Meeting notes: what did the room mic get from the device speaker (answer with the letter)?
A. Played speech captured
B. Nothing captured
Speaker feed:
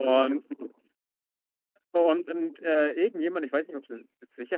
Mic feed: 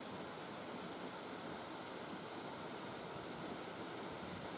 B